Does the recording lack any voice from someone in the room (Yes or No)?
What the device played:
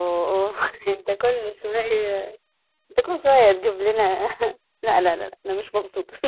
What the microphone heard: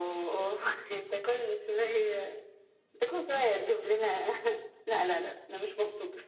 Yes